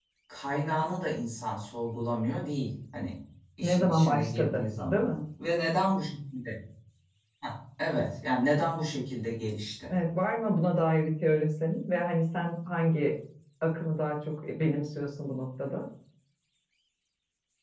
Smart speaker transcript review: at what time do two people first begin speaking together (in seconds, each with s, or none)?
3.6 s